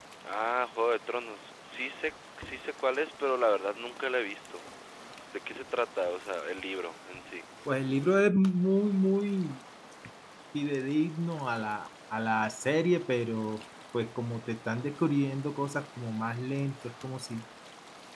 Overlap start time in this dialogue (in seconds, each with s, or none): none